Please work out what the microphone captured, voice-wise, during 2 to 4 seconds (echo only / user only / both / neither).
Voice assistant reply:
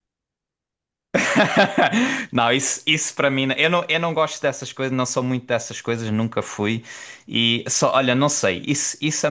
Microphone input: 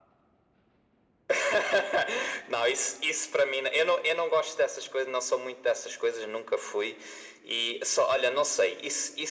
echo only